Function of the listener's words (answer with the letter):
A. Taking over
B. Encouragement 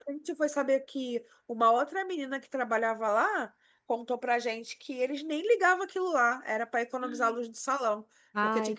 B